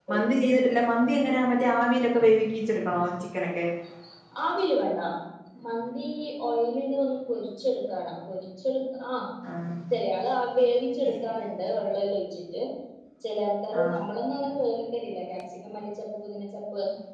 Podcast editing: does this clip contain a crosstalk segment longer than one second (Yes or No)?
No